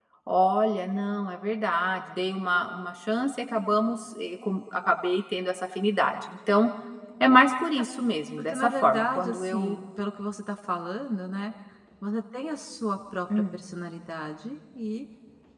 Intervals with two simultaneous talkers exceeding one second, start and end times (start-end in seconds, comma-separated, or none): 8.5-9.8